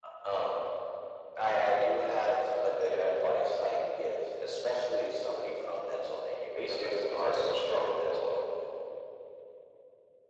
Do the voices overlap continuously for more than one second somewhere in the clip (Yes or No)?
Yes